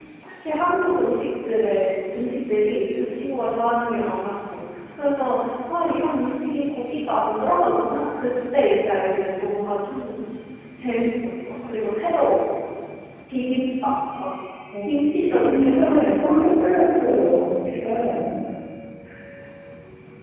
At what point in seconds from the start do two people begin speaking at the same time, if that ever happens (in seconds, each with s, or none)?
15.4 s